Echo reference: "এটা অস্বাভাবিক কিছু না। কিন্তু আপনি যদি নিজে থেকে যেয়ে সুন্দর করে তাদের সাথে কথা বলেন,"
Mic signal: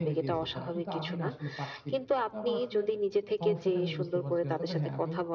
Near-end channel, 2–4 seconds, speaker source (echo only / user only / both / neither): both